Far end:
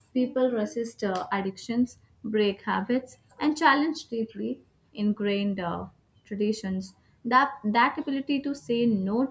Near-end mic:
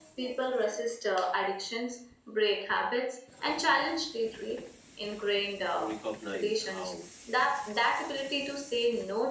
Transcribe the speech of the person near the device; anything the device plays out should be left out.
recognize how

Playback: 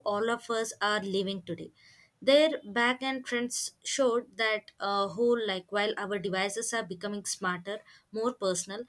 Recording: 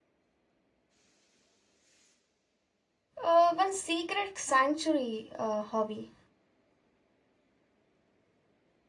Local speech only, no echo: Uh, one secret sanctuary uh, hobby.

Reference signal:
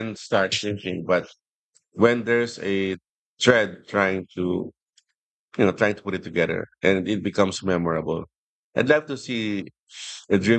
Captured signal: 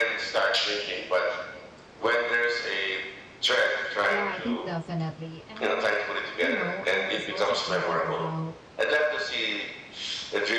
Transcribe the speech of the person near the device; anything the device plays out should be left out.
Yeah, I think definitely. And, you know, I was also thinking about

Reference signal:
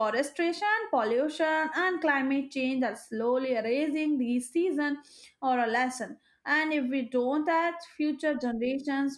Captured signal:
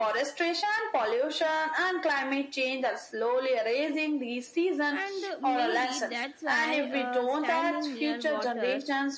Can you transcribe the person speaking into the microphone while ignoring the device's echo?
And maybe that's why uh, standing near water

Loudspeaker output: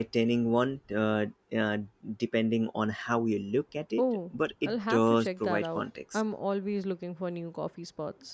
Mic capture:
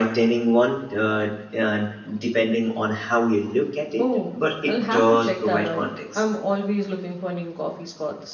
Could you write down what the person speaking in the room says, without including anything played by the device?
none

